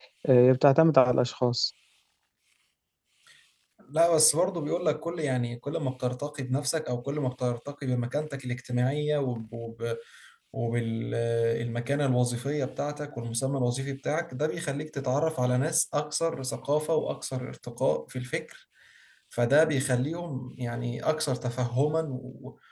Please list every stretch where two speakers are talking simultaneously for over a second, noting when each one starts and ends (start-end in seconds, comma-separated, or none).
none